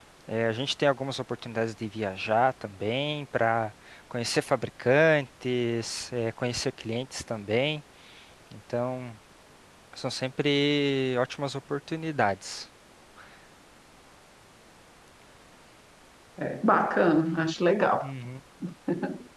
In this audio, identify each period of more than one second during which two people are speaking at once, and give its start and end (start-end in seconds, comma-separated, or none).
none